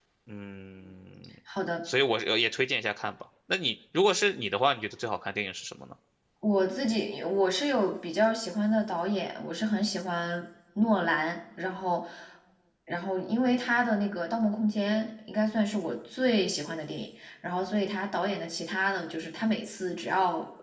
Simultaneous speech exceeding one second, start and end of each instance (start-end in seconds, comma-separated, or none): none